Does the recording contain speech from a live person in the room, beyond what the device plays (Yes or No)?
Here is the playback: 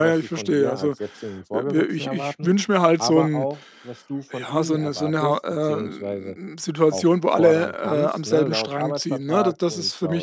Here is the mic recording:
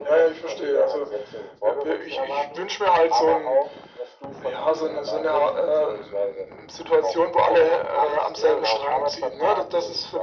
No